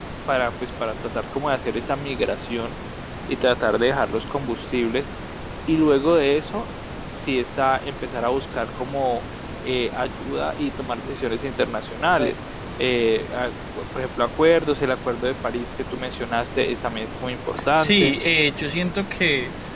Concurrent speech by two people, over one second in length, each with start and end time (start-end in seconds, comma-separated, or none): none